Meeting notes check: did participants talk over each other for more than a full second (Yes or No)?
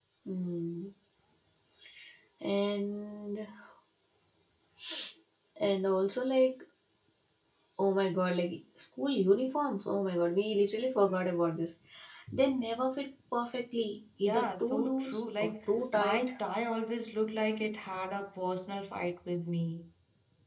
Yes